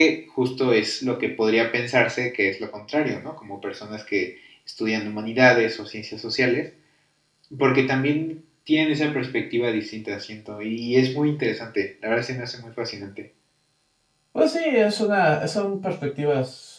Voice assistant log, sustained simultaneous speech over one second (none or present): none